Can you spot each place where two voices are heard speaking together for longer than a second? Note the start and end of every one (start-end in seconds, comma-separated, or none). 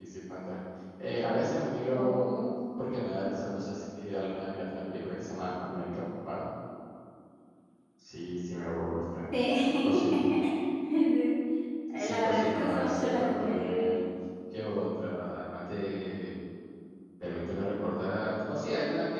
12.0-13.9